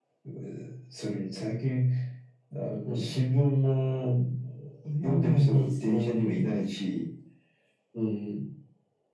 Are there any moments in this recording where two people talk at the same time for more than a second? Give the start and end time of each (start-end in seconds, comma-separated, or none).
5.0-6.4